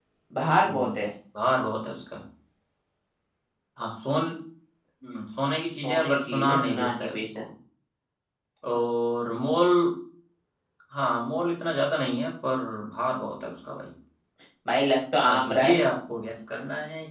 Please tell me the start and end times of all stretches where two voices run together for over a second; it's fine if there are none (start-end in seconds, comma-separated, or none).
5.8-7.4